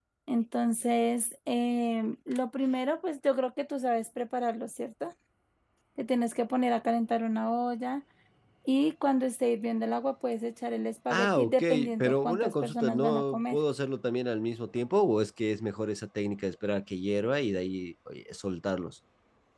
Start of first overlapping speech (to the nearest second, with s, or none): 11 s